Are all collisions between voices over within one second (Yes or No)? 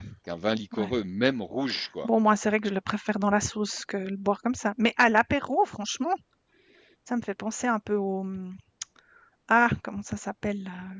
Yes